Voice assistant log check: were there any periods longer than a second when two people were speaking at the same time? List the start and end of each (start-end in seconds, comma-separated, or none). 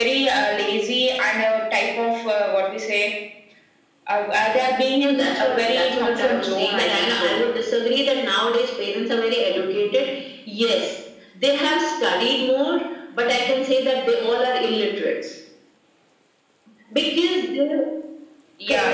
5.0-7.4